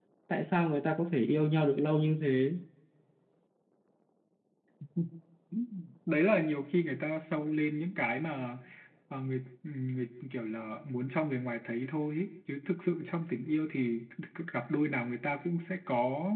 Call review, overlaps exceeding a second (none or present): none